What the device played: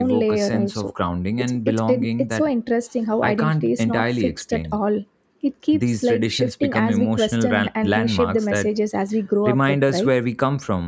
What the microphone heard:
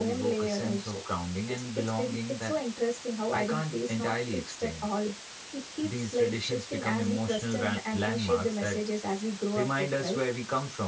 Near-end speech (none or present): none